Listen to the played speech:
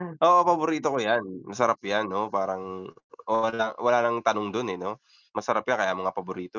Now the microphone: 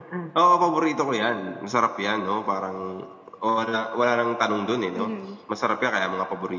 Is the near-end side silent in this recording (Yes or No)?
No